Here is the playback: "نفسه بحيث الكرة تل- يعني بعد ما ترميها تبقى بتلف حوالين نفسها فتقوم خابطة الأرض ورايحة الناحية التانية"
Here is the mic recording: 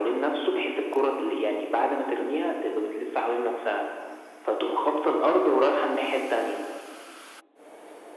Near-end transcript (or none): none